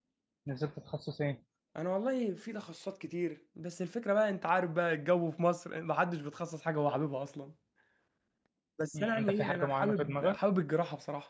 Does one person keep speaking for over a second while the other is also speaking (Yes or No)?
Yes